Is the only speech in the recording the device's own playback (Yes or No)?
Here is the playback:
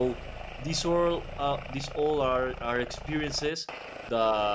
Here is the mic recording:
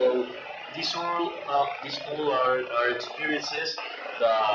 Yes